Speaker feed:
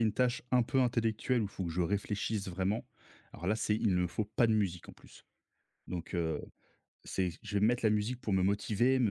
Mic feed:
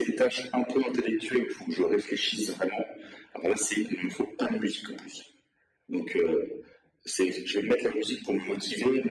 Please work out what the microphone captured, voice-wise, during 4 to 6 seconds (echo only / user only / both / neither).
echo only